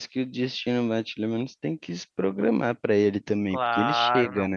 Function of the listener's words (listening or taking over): taking over